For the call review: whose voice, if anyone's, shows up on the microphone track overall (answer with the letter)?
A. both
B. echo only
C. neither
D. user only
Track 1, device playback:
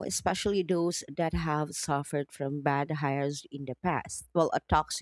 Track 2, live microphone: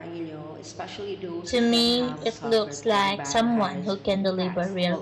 A